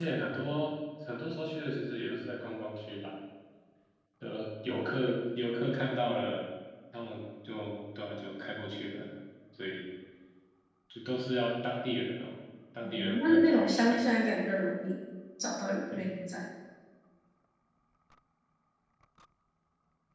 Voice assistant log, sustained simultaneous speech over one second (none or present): present